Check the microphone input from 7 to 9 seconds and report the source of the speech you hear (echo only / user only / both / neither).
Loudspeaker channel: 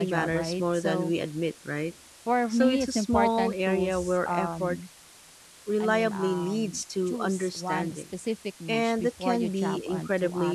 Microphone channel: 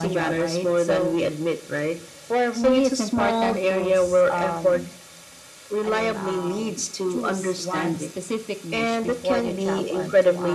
echo only